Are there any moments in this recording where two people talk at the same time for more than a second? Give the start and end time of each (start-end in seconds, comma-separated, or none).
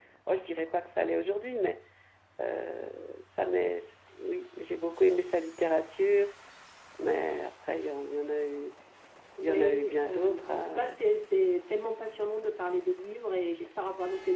9.4-10.9